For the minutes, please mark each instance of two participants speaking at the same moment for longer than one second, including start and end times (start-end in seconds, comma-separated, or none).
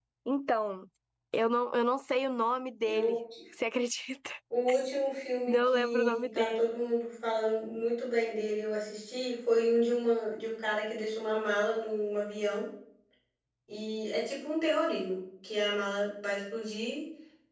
5.5-6.7